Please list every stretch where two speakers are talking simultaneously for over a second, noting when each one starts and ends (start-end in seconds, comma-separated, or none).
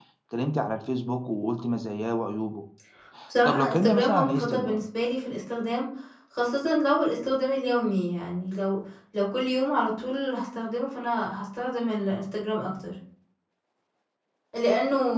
3.4-4.8